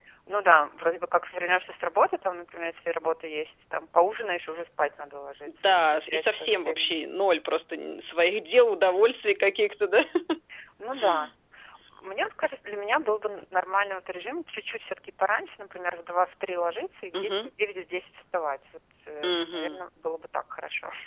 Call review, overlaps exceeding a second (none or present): present